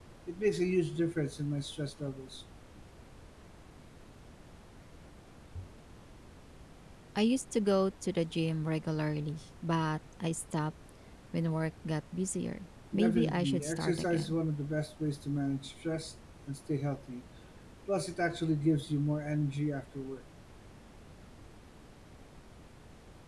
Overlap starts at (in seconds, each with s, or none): 12.9 s